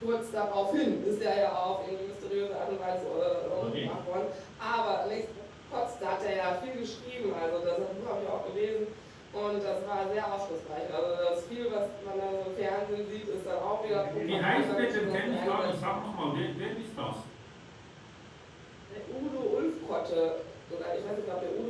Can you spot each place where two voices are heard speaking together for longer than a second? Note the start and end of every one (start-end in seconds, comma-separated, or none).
13.8-15.7